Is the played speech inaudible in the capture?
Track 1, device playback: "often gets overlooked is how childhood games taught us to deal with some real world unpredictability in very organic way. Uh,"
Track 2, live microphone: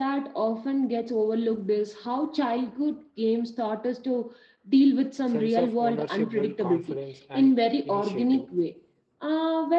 No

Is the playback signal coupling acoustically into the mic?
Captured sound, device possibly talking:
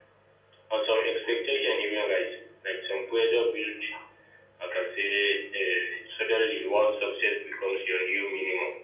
Yes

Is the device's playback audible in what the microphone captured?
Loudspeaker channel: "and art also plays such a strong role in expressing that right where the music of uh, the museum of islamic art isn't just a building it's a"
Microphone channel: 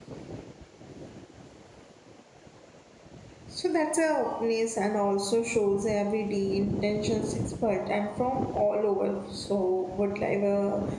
No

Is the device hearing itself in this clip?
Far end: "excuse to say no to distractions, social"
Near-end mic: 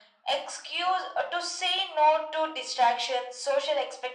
Yes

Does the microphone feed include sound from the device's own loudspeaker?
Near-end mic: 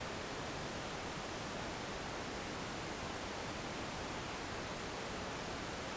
No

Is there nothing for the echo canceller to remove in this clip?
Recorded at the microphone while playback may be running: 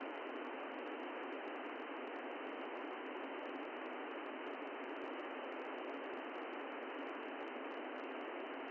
Yes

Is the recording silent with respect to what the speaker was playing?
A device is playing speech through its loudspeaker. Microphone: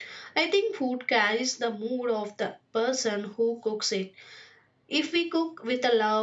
Yes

